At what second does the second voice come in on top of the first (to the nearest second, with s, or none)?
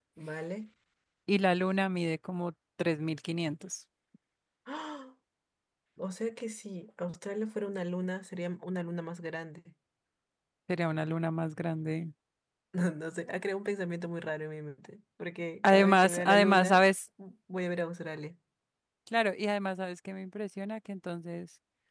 16 s